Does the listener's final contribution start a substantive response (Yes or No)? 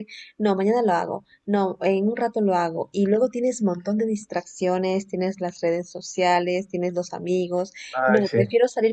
No